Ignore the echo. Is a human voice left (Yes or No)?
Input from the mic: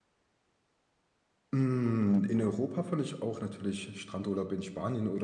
Yes